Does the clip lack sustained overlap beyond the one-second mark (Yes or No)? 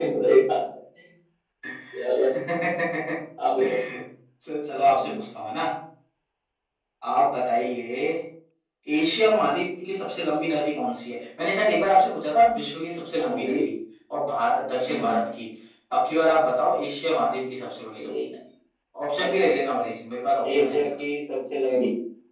Yes